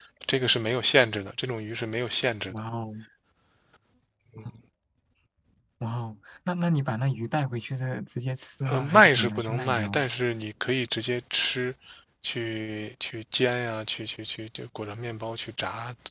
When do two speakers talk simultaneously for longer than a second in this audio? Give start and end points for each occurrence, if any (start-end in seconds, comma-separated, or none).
8.7-10.1